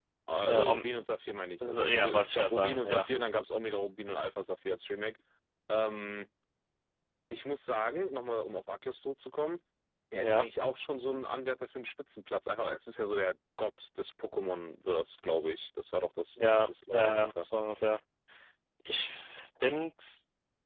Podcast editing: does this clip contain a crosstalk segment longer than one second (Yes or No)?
Yes